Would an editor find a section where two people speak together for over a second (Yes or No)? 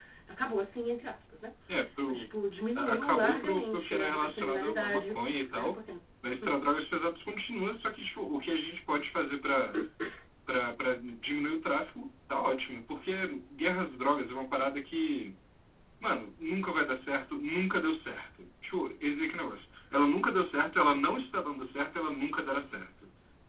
Yes